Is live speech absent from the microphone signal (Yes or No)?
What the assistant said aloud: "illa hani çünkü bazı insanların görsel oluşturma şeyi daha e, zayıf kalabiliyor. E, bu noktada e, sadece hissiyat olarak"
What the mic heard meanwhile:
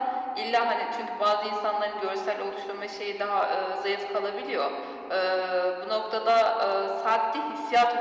Yes